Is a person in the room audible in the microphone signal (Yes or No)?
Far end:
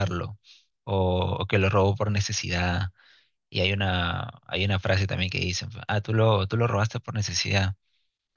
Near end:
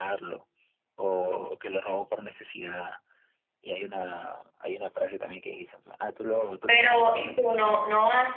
Yes